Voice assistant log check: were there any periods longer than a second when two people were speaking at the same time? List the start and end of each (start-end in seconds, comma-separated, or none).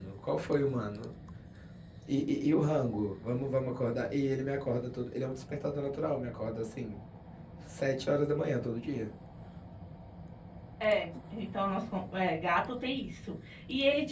none